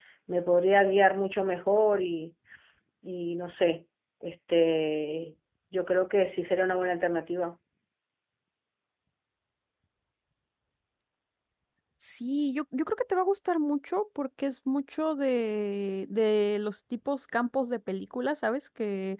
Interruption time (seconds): none

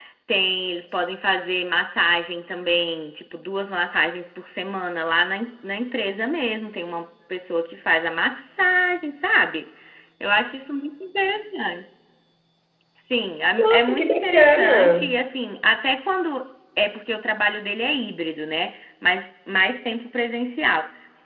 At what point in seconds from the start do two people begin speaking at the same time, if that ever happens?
13.6 s

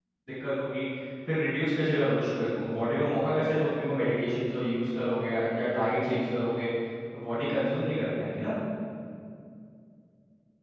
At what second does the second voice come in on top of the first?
none

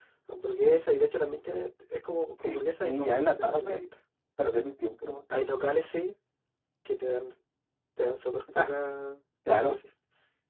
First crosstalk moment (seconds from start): 2.4 s

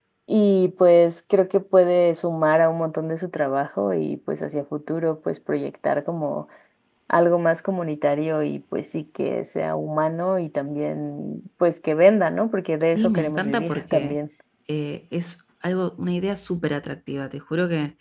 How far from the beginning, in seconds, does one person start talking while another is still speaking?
12.9 s

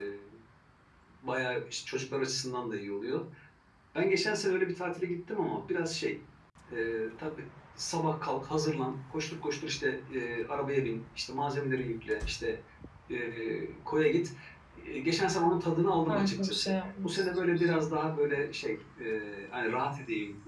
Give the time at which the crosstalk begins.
16.1 s

